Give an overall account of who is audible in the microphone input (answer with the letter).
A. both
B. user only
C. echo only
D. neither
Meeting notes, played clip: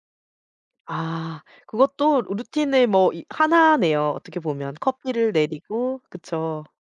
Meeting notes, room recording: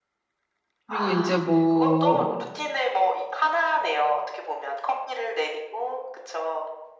A